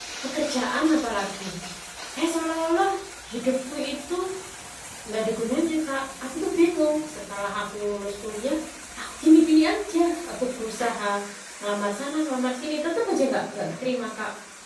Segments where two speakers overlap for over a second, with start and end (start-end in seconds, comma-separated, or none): none